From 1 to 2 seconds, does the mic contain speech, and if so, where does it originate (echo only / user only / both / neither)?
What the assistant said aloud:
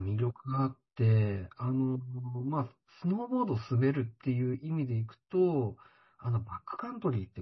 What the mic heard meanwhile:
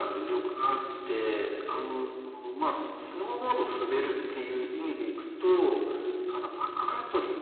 echo only